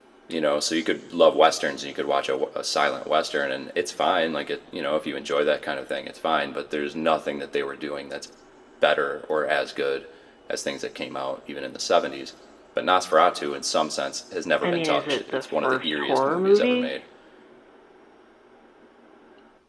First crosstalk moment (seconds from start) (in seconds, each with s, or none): 14.6 s